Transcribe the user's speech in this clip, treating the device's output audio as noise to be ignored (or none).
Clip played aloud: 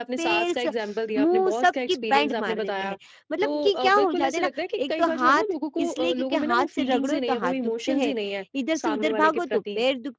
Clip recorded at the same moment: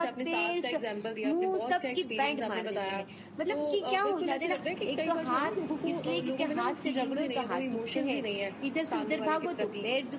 none